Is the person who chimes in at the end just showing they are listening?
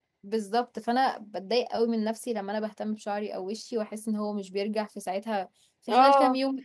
No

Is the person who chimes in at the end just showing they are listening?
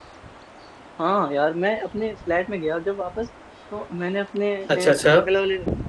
Yes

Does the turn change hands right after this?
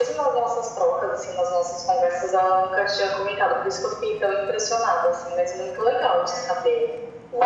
Yes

